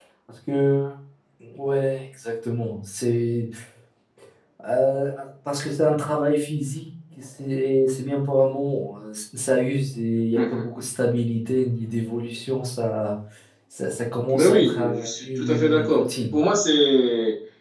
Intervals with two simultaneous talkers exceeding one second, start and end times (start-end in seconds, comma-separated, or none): 14.3-16.0